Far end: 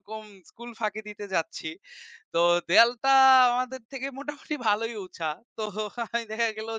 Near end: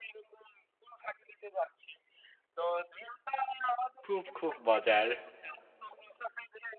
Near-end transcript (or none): খুব, খুব মজার!